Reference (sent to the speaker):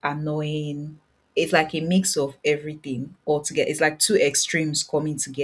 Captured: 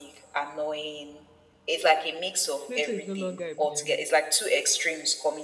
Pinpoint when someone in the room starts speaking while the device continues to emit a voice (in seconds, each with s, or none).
2.6 s